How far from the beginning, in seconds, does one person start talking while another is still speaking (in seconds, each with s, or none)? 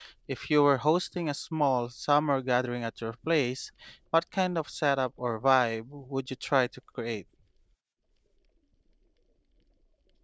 none